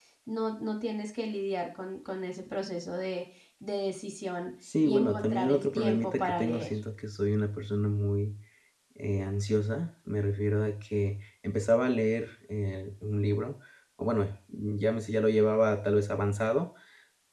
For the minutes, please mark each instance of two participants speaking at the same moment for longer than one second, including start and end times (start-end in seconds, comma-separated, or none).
4.8-6.7